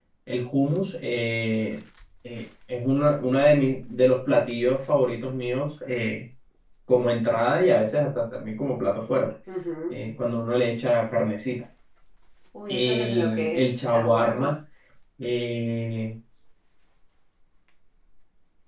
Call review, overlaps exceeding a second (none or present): present